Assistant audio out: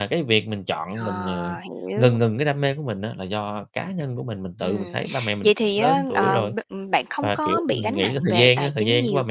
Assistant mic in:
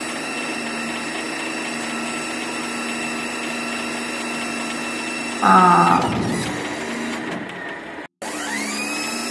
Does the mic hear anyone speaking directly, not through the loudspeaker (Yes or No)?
Yes